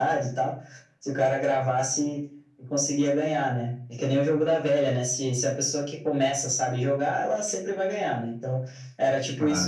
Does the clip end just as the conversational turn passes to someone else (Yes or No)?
No